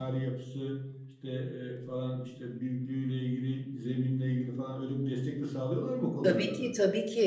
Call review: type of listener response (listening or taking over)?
taking over